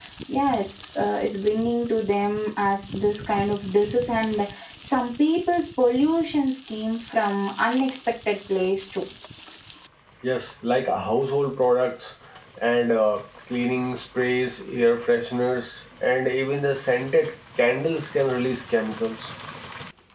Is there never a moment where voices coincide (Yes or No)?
Yes